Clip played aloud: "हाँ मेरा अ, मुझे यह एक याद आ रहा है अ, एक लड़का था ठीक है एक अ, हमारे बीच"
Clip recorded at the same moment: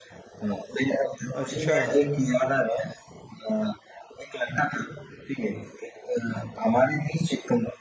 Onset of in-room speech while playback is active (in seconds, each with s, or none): 1.3 s